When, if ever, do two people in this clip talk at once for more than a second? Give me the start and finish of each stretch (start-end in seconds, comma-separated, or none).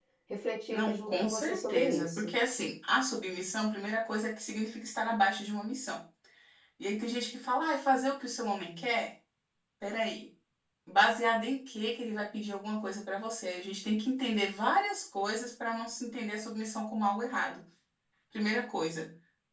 0.7-2.3